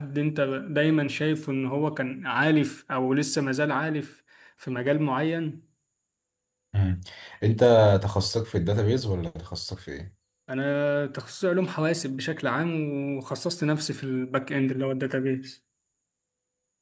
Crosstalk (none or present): none